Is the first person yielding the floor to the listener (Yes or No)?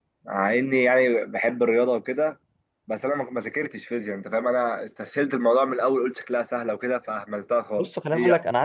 Yes